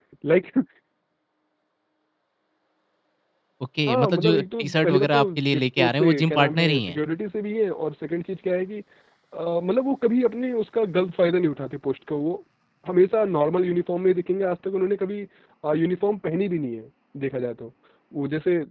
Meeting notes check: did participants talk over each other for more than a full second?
Yes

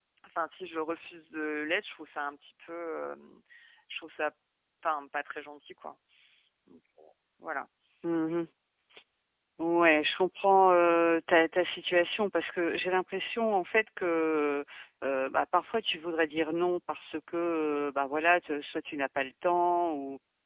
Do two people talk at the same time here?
No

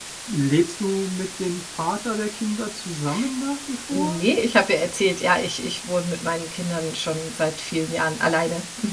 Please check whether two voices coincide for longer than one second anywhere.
No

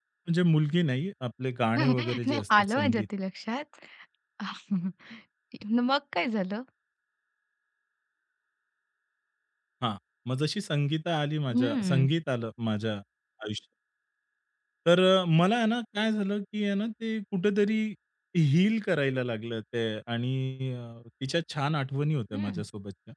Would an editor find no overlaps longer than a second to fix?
No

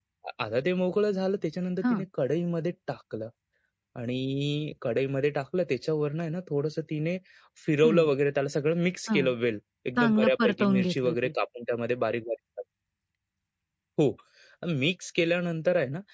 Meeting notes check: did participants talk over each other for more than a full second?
Yes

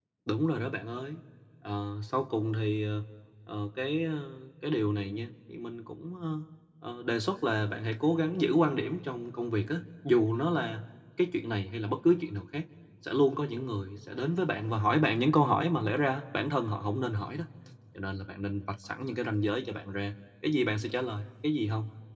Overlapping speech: No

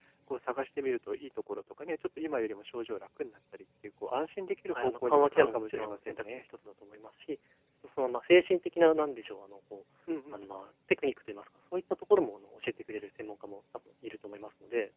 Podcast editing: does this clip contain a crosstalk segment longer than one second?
Yes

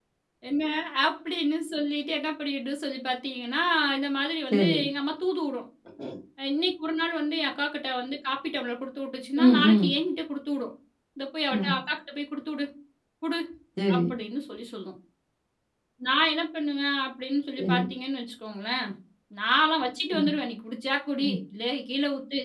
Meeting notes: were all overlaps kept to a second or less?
Yes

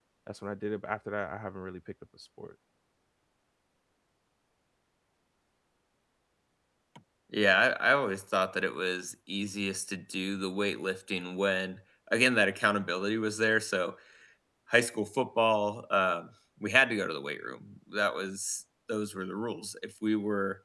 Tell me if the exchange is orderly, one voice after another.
Yes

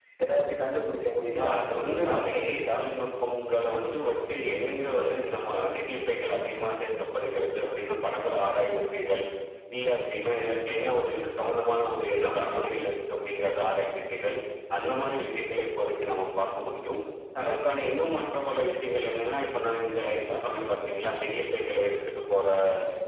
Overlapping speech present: Yes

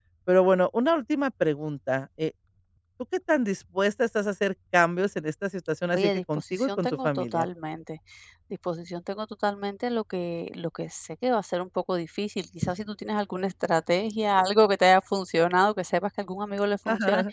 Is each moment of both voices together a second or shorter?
No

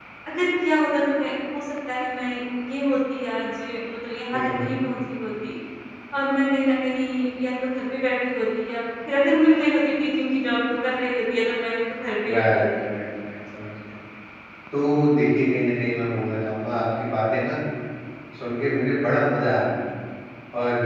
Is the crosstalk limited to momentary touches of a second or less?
Yes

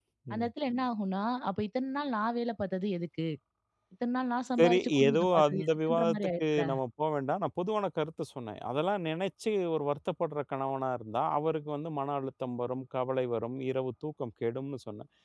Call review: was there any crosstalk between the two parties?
Yes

